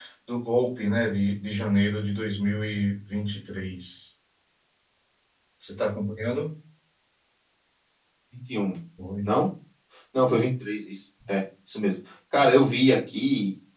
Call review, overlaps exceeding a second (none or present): none